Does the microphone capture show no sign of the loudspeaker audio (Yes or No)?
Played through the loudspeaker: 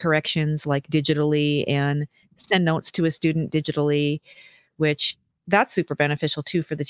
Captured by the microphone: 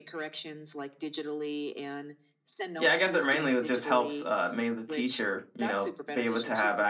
No